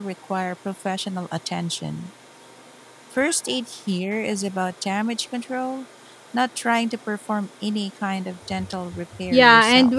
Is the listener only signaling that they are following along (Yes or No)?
No